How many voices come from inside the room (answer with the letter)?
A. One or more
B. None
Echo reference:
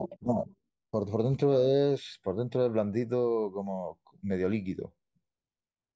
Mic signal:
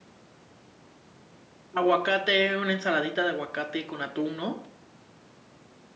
A